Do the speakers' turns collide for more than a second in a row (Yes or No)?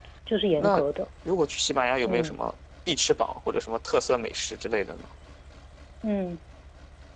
No